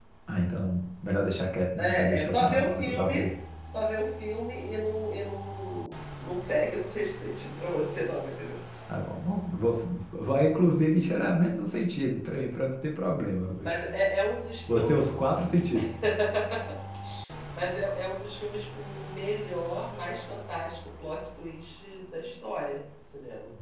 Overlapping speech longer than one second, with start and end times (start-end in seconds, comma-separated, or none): 1.8-3.3